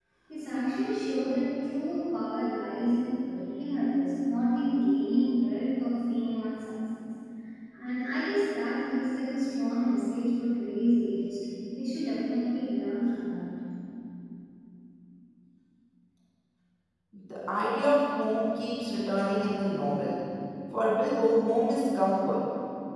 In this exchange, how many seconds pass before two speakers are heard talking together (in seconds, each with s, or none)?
none